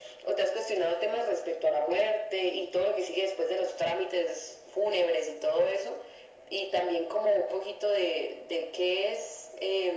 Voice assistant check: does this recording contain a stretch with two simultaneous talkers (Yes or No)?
No